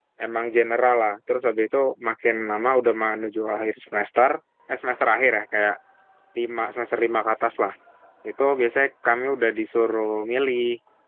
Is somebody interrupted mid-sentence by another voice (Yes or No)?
No